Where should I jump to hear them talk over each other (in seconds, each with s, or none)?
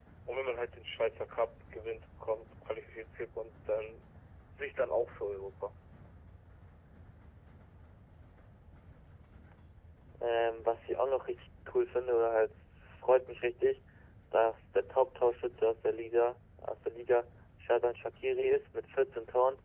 none